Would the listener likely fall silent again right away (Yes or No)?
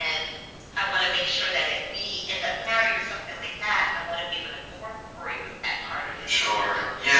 No